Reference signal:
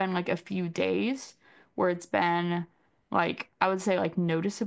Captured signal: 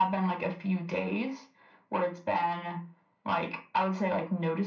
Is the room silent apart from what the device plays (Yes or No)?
Yes